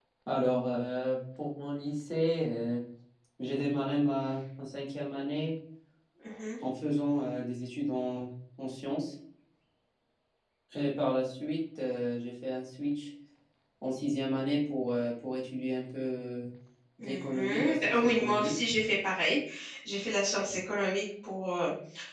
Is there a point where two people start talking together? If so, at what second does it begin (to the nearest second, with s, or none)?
17 s